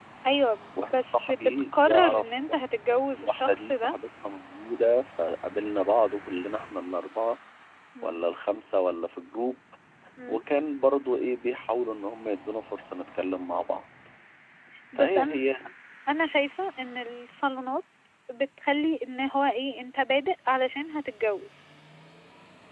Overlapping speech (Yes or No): Yes